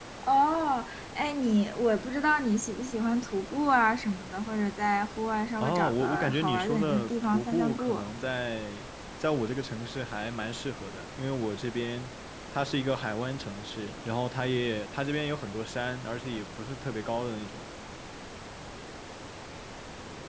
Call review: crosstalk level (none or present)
present